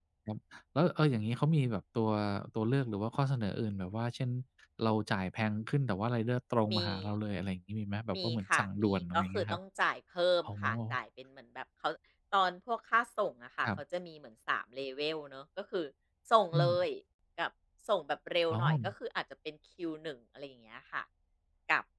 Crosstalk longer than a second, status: present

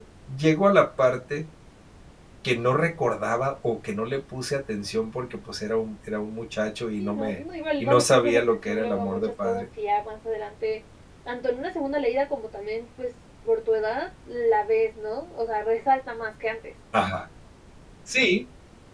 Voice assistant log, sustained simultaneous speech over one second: present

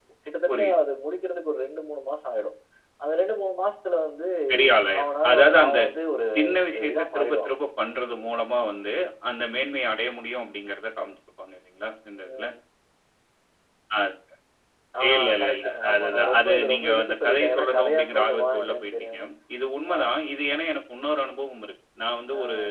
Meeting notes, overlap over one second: present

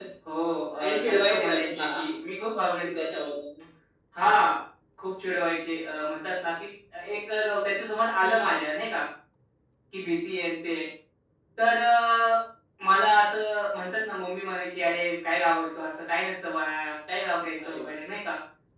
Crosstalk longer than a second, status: present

